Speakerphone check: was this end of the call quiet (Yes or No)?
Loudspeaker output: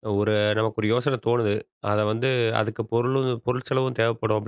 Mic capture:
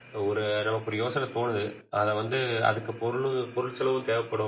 Yes